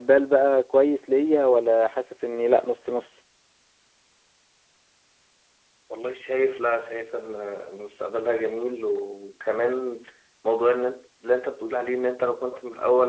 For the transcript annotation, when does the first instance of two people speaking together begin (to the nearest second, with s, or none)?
none